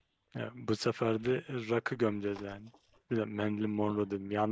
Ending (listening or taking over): listening